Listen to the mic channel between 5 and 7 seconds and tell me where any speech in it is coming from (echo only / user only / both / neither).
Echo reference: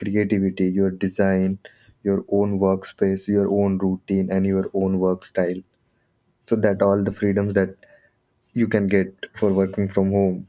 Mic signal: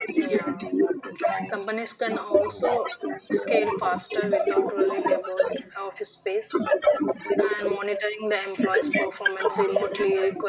both